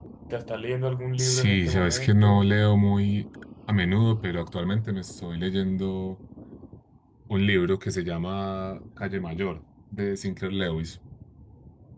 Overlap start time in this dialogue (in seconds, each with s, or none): 1.2 s